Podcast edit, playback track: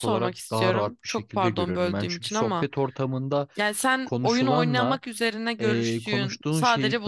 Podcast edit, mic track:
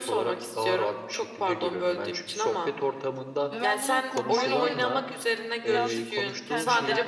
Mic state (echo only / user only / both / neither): both